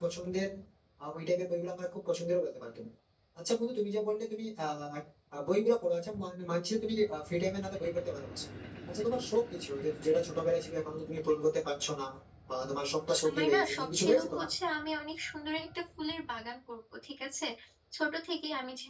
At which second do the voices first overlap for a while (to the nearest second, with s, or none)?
13 s